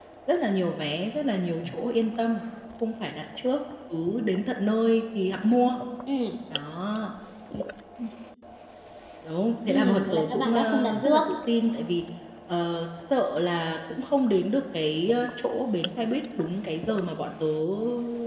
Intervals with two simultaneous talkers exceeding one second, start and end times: 9.7-11.2

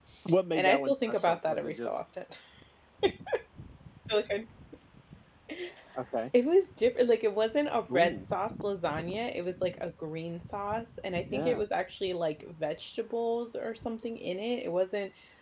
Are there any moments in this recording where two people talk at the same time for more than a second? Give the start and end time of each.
0.6-2.0

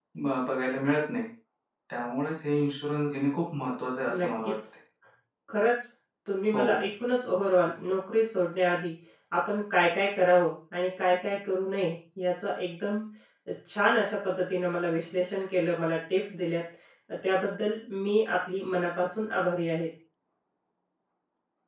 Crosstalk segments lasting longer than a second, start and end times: none

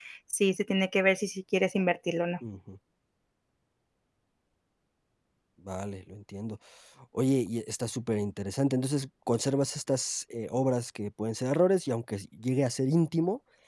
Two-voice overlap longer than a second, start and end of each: none

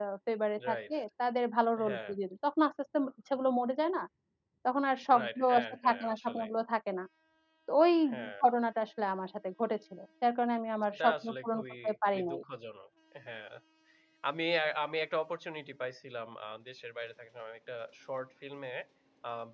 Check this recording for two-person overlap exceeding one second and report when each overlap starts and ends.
5.2-6.5, 10.9-12.4

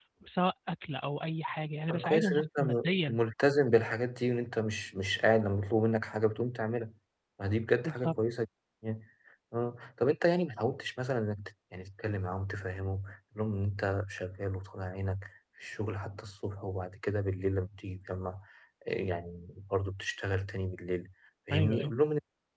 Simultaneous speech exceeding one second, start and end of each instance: 1.9-3.2

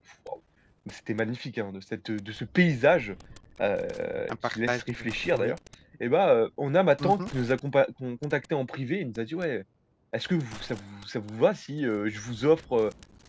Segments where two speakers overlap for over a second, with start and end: 4.3-5.6

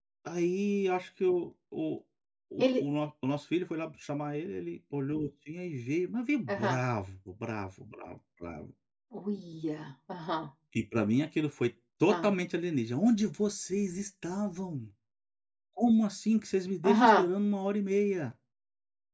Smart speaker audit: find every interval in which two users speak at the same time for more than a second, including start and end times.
none

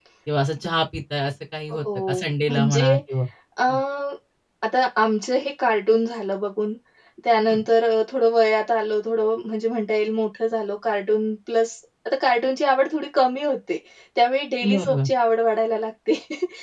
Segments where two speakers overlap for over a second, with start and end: 1.7-2.9

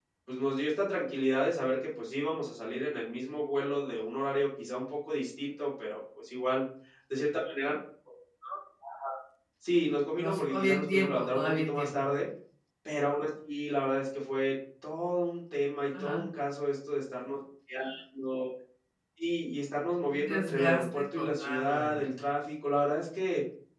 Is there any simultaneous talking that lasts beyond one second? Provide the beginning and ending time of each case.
10.2-11.9, 20.1-22.1

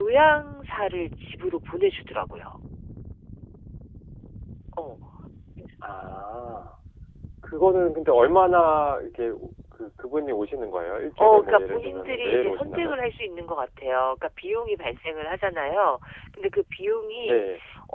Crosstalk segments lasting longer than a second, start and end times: 11.2-12.9

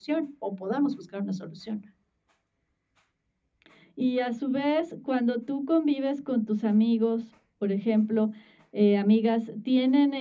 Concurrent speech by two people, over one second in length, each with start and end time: none

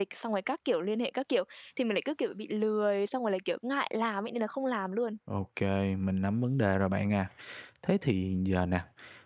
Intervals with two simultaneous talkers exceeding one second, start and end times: none

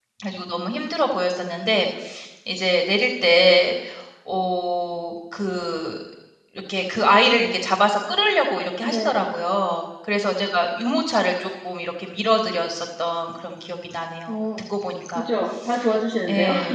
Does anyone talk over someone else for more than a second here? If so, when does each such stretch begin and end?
none

